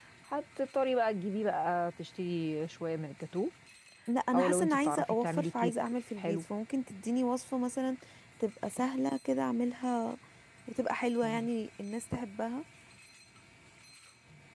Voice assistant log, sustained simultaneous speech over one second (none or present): present